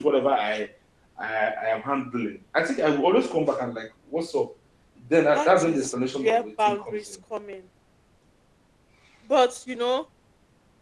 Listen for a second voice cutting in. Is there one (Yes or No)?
Yes